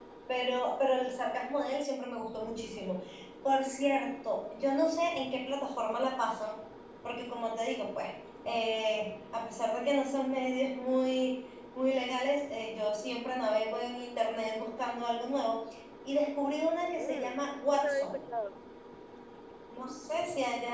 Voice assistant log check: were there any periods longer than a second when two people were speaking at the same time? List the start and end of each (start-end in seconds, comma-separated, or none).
17.0-18.2